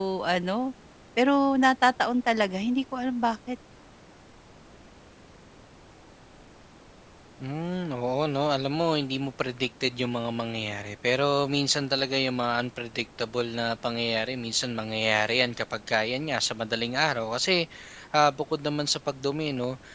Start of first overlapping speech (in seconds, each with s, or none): none